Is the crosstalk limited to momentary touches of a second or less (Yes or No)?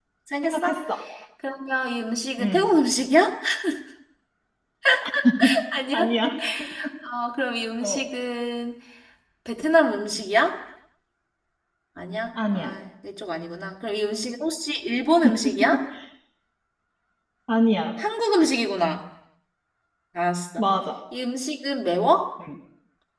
Yes